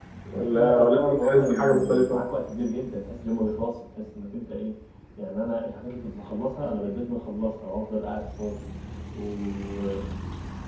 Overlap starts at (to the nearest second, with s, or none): 1 s